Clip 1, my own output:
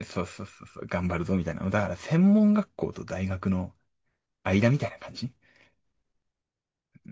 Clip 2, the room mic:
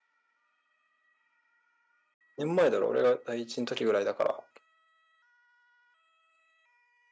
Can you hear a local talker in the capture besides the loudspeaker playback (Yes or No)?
Yes